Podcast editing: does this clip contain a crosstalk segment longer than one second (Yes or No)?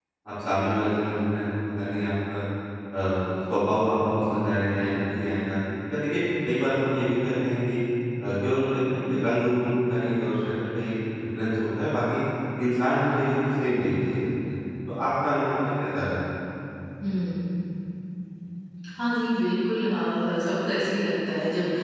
No